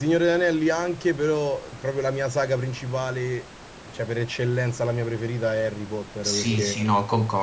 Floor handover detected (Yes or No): Yes